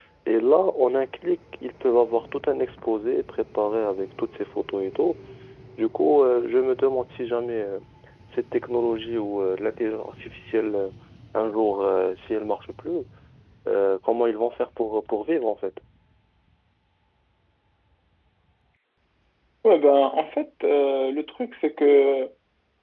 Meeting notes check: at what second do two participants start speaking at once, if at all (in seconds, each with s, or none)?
none